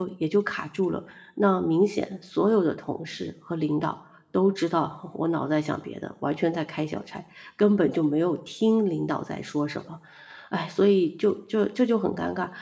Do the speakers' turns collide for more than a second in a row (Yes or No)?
No